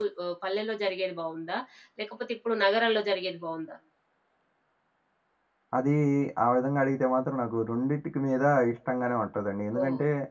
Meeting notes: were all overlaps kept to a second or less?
Yes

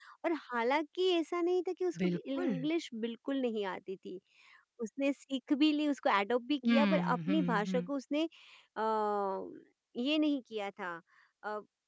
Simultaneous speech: Yes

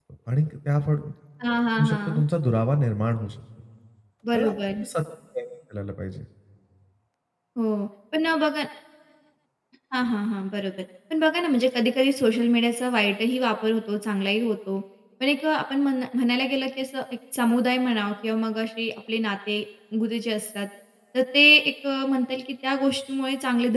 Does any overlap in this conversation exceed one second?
No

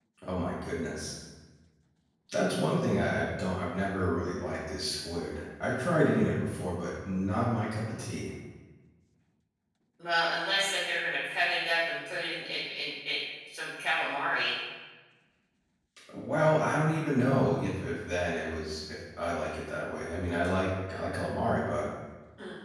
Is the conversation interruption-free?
Yes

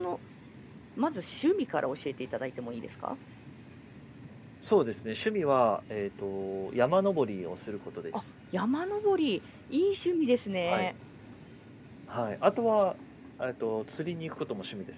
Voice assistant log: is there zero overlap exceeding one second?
Yes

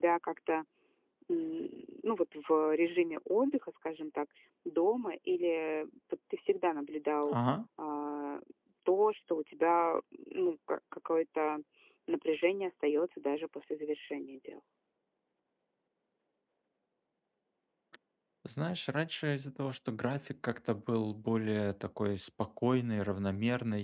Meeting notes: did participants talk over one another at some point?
No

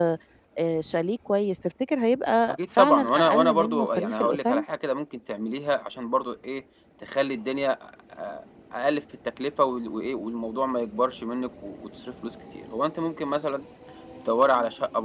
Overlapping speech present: Yes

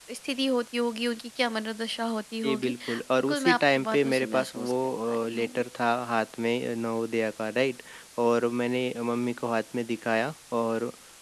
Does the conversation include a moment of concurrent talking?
Yes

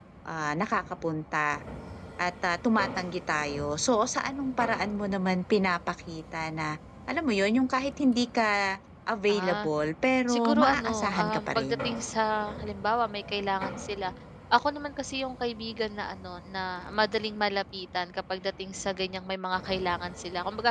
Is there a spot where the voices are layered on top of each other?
Yes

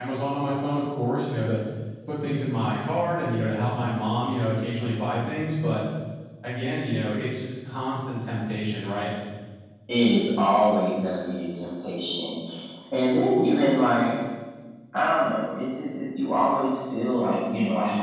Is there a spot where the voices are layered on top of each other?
No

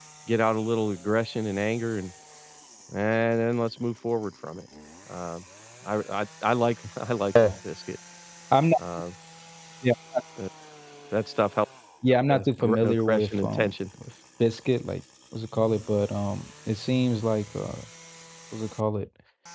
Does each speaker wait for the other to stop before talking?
No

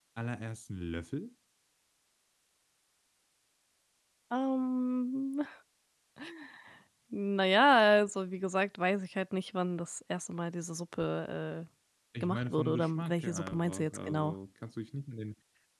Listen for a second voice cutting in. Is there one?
Yes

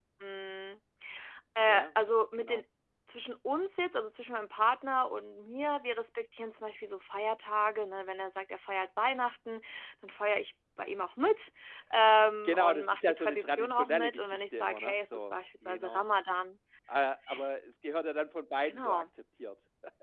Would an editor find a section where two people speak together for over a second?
Yes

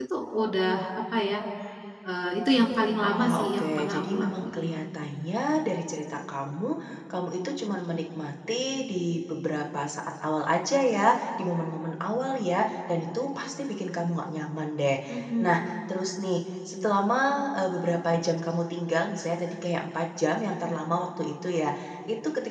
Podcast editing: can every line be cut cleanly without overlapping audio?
No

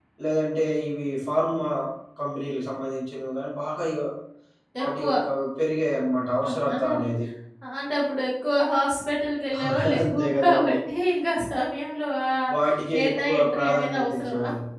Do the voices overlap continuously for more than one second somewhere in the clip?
Yes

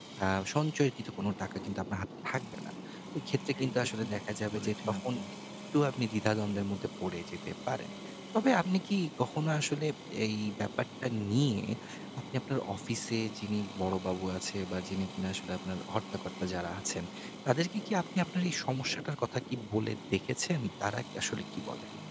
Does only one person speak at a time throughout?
No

